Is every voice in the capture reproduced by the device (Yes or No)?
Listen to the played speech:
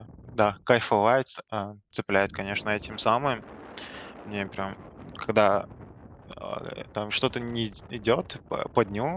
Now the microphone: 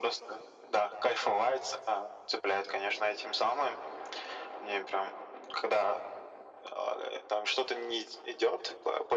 Yes